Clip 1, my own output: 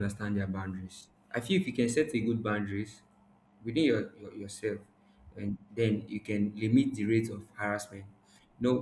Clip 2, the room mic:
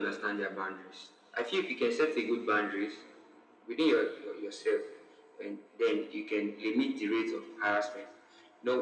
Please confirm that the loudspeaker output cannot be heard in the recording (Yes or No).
No